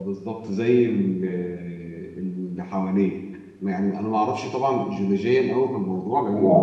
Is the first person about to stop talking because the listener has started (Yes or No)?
No